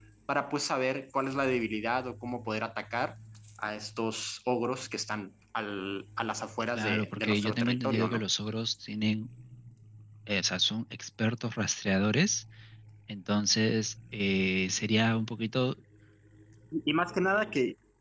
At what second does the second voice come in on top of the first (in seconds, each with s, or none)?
6.8 s